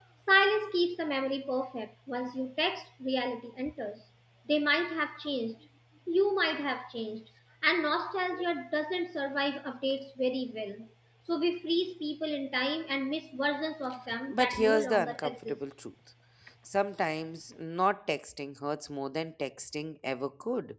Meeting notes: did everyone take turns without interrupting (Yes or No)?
No